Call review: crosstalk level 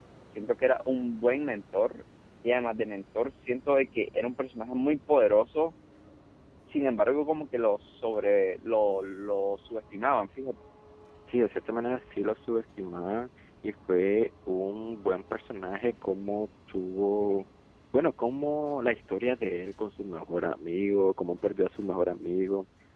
none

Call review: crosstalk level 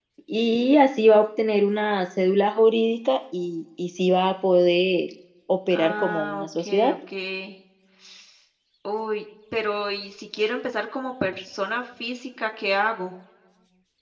present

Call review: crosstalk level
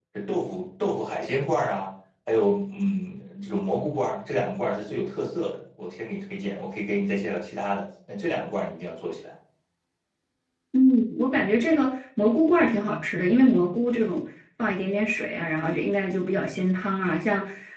none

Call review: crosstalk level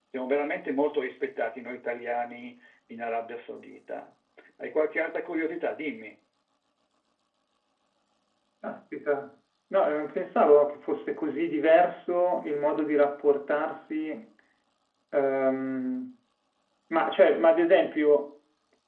none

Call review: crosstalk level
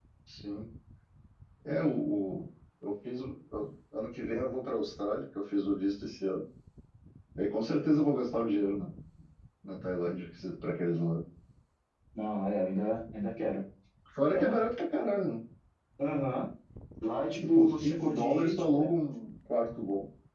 present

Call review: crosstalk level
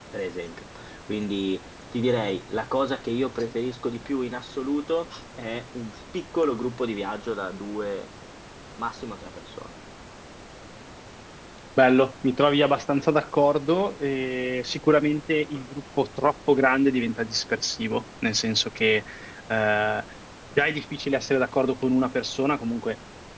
none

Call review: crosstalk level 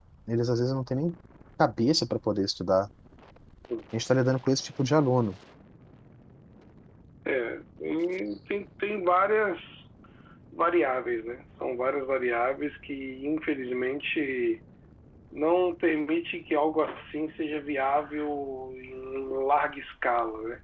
none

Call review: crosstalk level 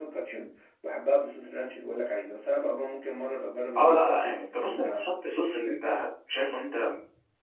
present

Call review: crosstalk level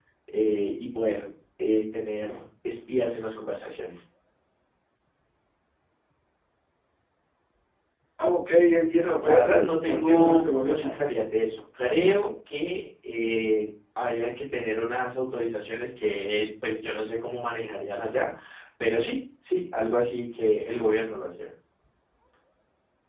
present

